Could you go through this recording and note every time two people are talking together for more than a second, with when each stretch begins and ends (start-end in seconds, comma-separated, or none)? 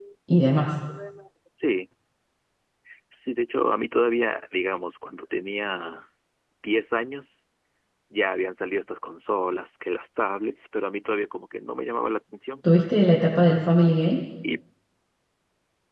none